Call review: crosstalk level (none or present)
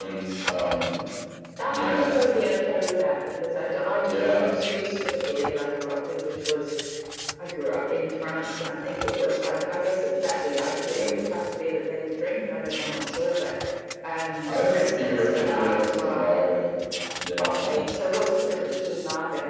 present